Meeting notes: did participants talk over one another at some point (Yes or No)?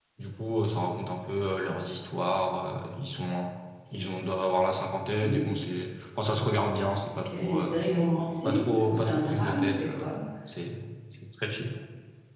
Yes